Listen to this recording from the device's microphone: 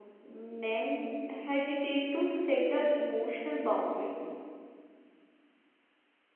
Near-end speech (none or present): present